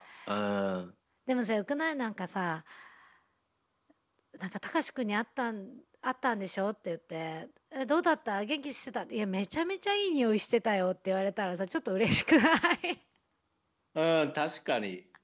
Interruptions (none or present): none